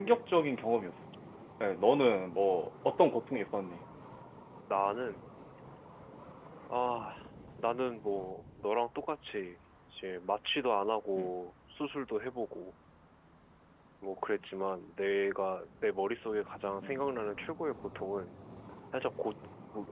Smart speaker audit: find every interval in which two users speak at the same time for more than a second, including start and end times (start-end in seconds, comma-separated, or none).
none